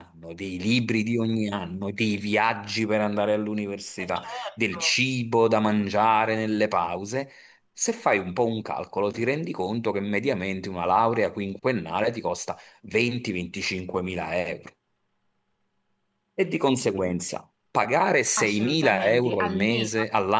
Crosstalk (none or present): present